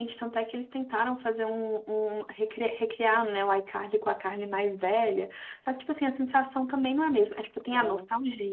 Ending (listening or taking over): listening